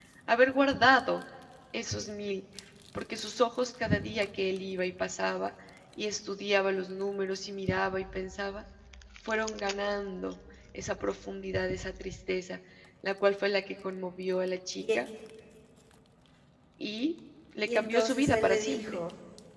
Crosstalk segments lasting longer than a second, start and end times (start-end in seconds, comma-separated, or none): 17.6-19.0